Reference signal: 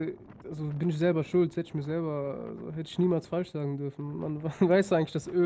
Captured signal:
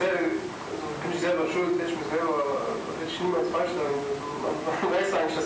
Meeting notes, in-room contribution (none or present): none